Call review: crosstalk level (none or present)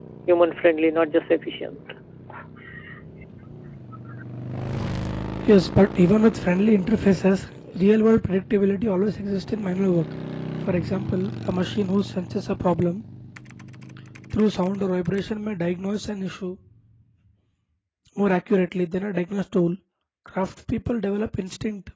none